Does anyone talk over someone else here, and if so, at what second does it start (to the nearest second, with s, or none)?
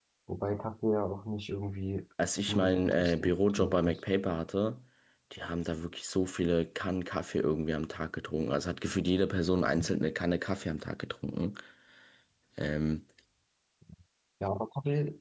2 s